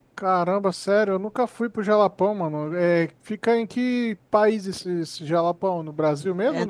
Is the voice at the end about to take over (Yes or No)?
Yes